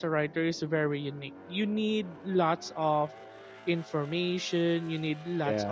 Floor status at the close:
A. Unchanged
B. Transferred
A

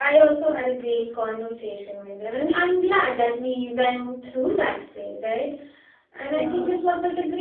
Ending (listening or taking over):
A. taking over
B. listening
B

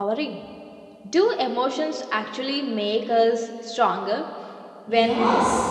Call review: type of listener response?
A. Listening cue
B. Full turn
B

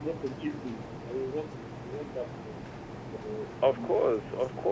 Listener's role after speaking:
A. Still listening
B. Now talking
B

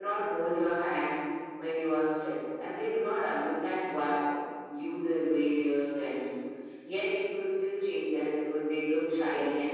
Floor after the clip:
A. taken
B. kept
A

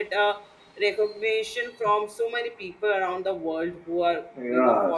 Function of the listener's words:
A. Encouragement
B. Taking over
B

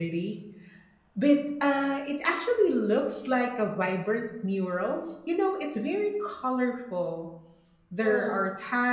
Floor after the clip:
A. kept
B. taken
A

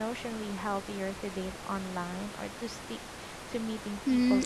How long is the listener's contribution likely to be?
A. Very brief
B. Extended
B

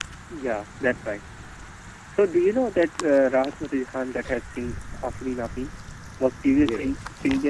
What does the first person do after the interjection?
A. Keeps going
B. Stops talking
A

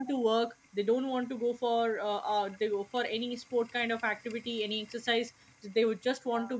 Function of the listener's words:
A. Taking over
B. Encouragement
B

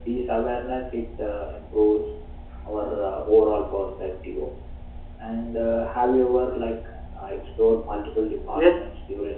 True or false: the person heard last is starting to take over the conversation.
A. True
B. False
A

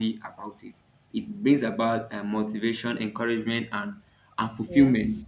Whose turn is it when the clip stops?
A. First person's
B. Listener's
A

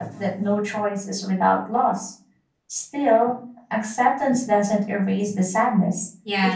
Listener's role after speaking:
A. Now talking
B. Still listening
A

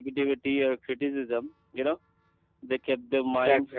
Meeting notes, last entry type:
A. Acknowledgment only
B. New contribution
A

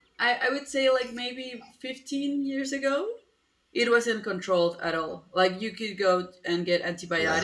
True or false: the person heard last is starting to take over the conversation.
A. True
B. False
B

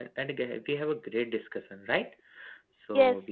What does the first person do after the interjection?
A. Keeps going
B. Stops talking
B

